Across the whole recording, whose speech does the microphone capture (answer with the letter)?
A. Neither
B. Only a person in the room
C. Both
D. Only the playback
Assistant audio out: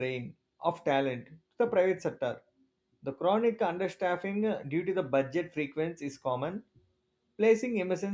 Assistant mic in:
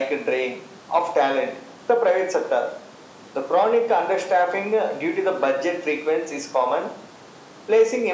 D